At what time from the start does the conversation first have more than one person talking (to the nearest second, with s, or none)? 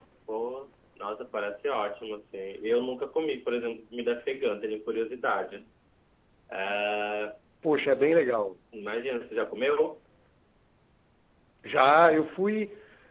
none